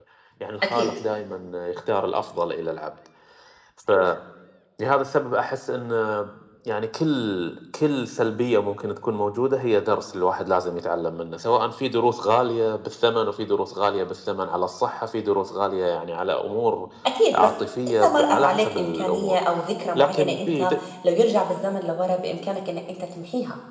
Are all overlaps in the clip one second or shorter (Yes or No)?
No